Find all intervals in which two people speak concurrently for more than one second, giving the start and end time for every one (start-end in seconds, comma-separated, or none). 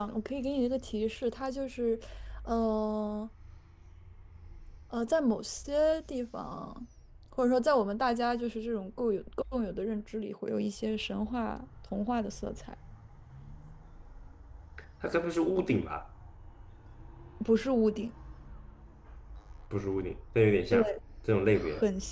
none